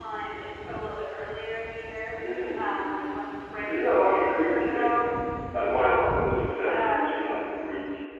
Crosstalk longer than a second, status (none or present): present